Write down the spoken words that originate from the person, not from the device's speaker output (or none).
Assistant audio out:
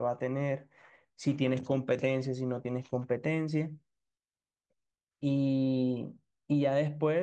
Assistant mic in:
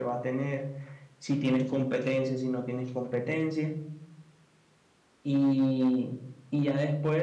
none